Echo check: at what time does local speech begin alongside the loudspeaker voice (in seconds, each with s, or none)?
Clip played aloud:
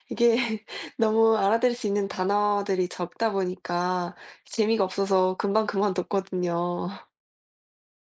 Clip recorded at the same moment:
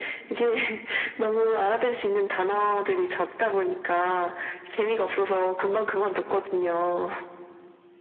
none